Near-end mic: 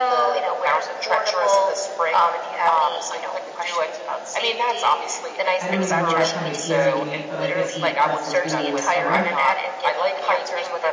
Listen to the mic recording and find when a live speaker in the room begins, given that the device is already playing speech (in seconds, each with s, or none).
5.6 s